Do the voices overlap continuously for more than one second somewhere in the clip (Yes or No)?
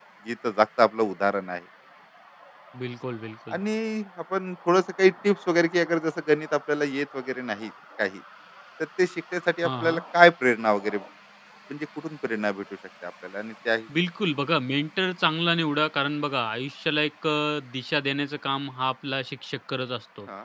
No